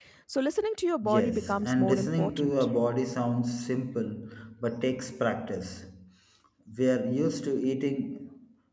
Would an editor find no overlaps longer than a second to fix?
No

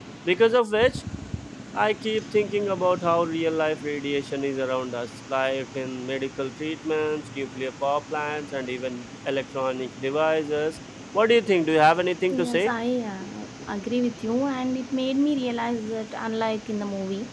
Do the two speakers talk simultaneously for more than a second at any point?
No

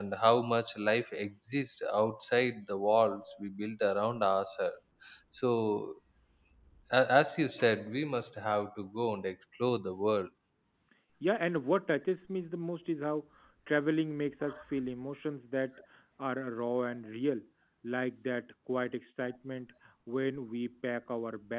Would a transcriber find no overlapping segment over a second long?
Yes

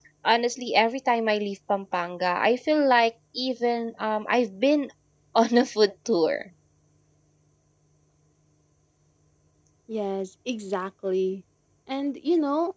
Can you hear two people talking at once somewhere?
No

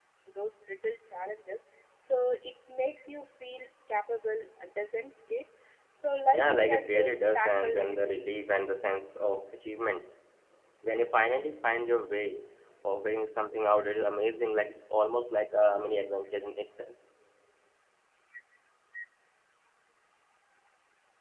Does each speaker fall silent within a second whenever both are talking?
No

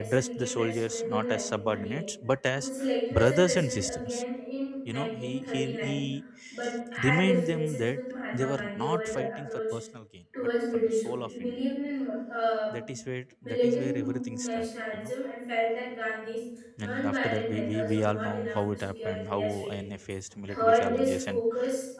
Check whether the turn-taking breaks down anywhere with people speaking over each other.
Yes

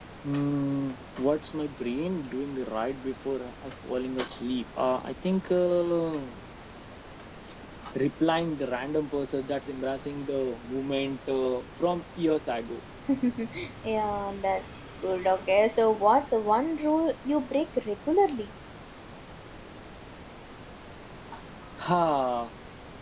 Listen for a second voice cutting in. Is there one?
No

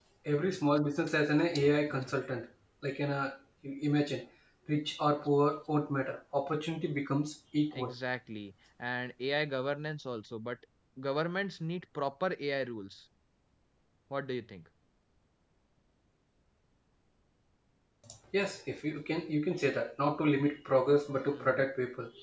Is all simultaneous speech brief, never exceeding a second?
Yes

